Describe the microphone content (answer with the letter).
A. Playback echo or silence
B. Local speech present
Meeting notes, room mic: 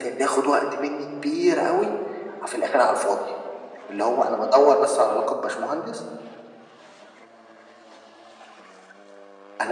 A